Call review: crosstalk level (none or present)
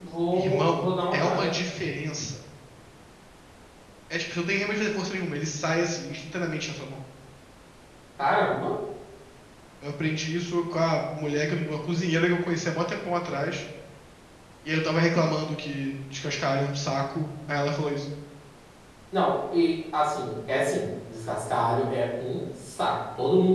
present